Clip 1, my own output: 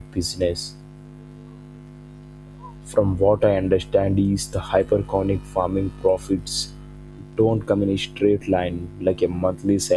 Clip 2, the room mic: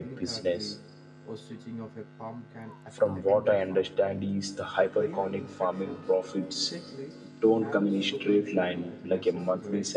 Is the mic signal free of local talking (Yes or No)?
No